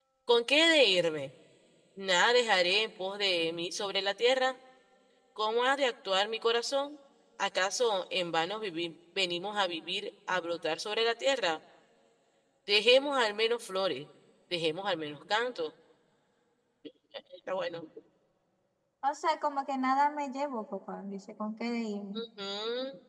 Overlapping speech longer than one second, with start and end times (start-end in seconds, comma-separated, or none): none